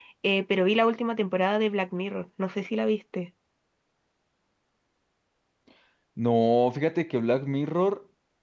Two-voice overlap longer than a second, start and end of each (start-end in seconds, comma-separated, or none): none